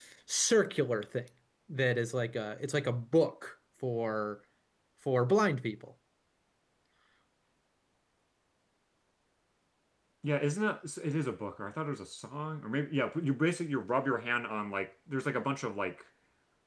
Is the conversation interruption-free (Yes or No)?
Yes